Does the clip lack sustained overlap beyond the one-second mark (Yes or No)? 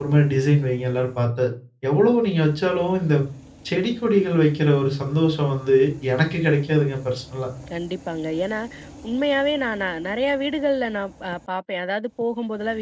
Yes